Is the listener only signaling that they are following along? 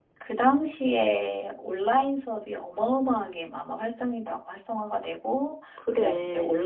Yes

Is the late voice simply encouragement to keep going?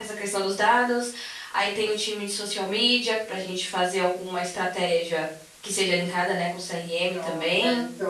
No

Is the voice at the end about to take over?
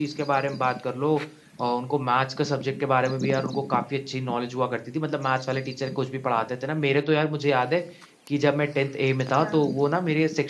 No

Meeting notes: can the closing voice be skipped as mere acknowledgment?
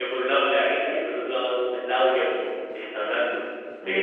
No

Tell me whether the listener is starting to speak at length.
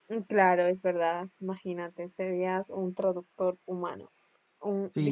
Yes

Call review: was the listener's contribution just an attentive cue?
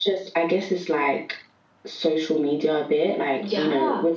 Yes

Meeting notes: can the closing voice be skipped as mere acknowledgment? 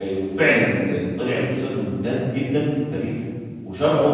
No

